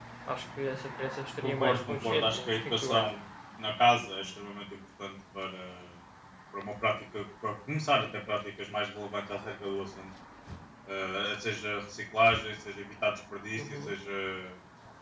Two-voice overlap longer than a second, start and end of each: 1.4-3.1

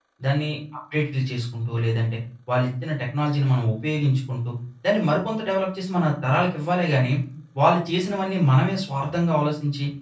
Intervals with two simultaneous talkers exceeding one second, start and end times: none

